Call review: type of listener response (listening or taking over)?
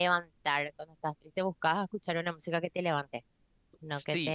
taking over